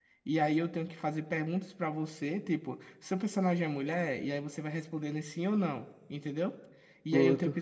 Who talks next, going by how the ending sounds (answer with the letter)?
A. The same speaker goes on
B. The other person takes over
A